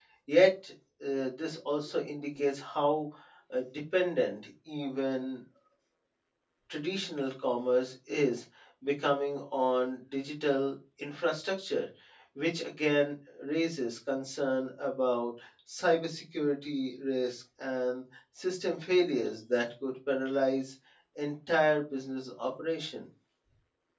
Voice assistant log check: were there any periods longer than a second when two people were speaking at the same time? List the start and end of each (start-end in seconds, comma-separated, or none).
none